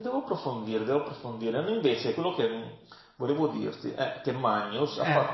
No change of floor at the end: Yes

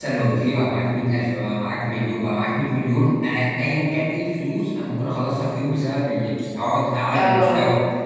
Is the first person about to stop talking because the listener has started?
No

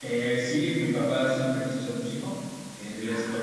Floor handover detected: No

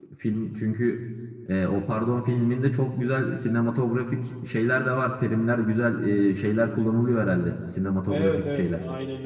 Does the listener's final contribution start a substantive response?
Yes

